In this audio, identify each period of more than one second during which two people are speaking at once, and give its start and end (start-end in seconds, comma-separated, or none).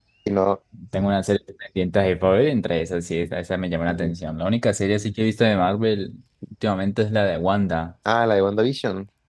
none